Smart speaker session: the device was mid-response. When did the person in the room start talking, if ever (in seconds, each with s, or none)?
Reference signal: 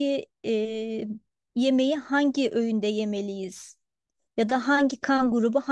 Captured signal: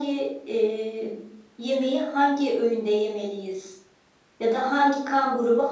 none